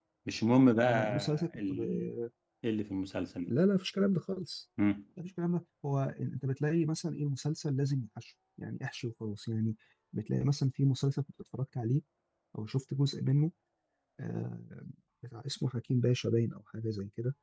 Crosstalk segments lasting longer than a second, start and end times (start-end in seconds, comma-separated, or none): 0.8-2.0